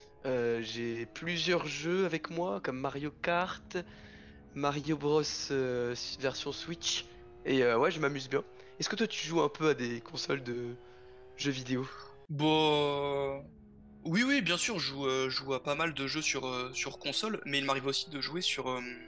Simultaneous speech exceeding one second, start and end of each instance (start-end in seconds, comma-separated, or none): none